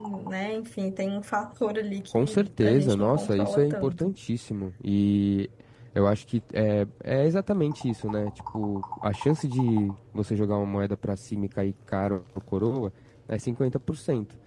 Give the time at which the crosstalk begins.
2.1 s

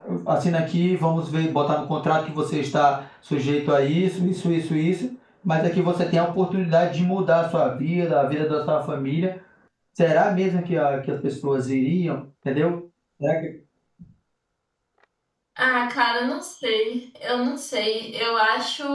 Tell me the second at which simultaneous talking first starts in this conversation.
none

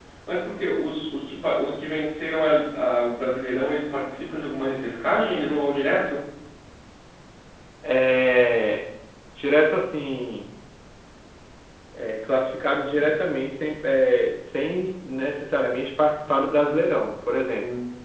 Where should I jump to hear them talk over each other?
none

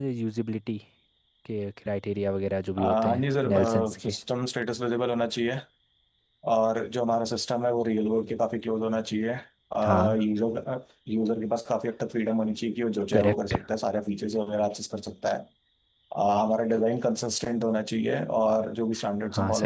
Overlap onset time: 2.8 s

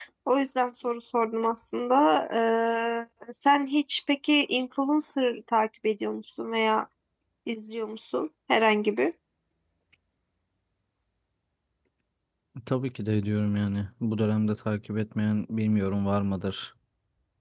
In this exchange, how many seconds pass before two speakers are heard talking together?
none

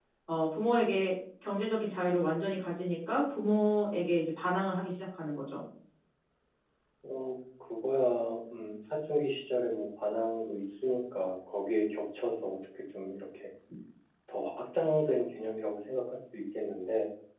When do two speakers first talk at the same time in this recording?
none

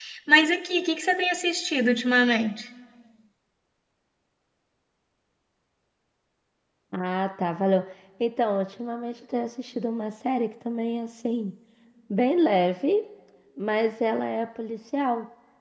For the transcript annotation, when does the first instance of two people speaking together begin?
none

